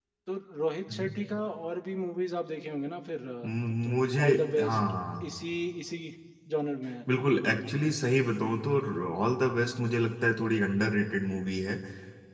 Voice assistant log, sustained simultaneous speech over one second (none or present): present